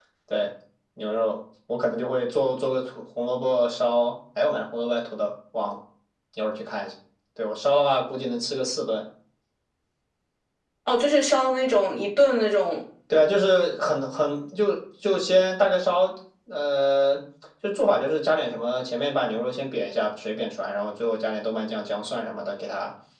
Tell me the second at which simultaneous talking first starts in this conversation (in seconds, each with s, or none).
none